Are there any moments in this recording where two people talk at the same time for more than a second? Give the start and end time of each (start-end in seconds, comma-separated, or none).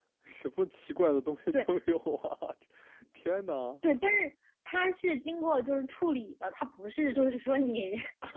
none